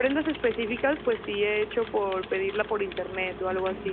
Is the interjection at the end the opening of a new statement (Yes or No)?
Yes